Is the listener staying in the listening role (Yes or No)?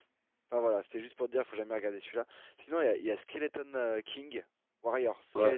No